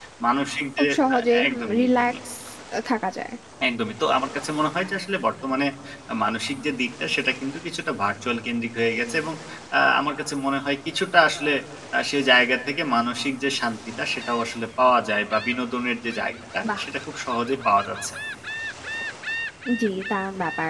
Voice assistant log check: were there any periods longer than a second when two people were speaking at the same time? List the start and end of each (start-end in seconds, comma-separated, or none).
0.8-2.1